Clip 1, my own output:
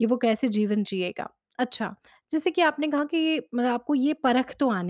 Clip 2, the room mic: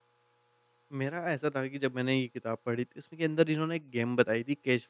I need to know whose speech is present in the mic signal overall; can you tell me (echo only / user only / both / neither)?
user only